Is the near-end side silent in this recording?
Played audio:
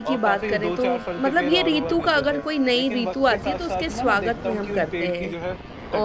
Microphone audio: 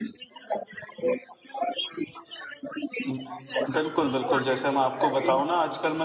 No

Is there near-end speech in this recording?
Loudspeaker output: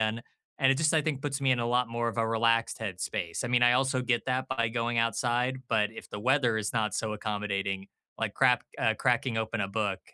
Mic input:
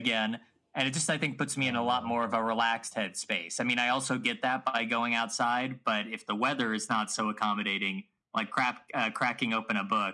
Yes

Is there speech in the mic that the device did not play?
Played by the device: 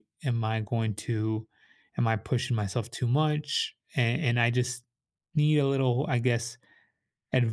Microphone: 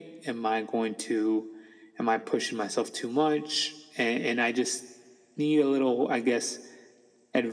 No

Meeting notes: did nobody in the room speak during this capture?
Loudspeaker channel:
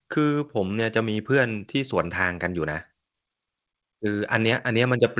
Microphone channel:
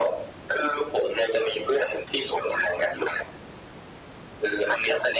Yes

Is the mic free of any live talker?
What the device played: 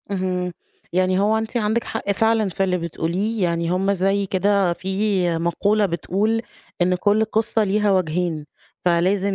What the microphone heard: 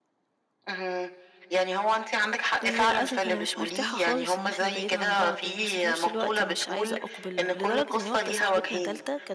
No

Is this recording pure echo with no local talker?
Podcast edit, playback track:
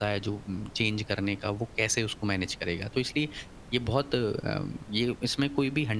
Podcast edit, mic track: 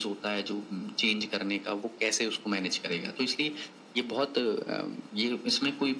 Yes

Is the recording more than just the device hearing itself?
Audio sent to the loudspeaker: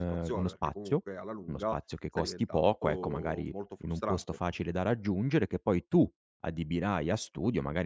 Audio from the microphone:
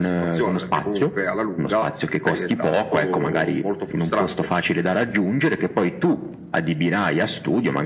No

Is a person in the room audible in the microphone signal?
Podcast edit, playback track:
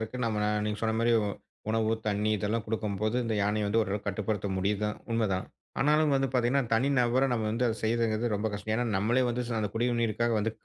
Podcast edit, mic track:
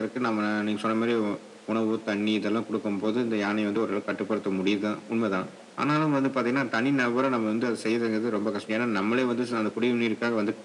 No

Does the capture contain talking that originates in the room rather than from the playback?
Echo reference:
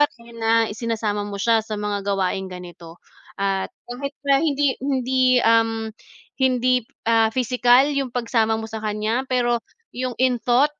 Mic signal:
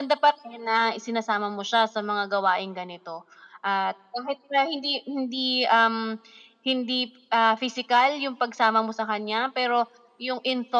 No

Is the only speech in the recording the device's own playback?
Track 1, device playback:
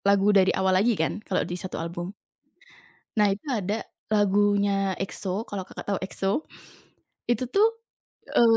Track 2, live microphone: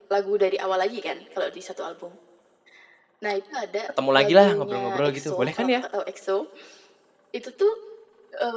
No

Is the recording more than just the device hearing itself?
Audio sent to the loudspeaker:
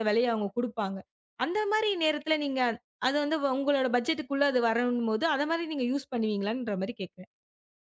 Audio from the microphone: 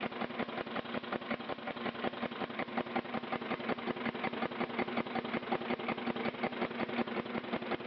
No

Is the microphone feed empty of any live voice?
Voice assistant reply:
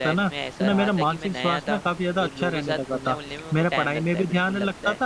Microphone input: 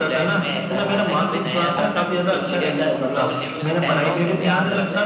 No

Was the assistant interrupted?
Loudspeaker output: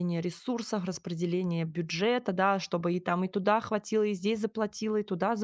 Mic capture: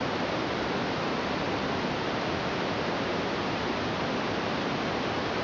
No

